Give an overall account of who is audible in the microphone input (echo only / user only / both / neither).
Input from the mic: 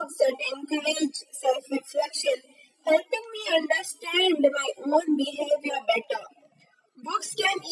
echo only